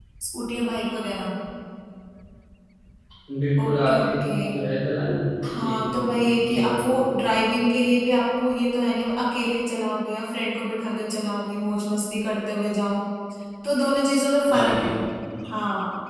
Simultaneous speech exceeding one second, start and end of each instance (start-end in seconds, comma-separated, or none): 5.6-7.0